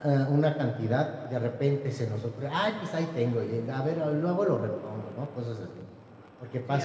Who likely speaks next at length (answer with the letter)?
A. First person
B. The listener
B